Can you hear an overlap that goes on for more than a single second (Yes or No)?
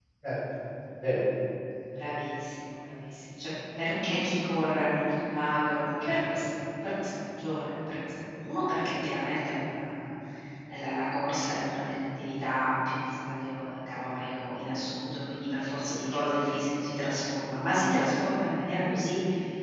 No